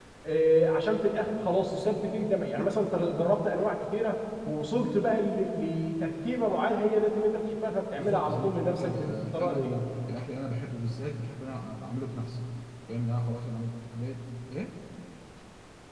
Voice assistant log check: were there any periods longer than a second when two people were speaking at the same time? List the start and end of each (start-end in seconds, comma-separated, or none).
7.9-9.8